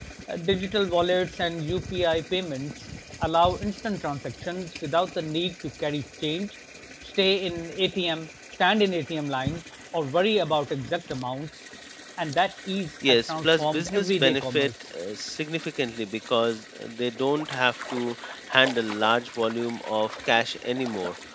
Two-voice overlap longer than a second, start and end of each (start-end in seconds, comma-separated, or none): 13.1-14.7